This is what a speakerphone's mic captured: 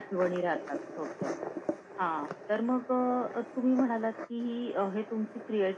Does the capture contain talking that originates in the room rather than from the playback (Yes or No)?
No